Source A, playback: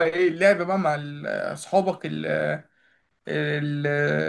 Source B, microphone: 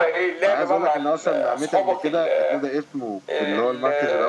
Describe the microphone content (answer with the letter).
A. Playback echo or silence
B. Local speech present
B